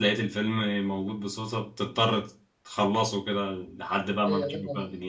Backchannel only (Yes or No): No